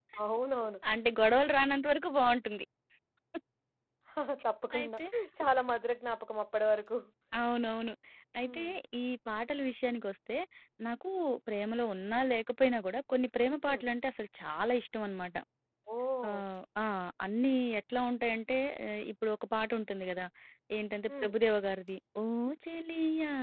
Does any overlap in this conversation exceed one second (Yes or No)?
No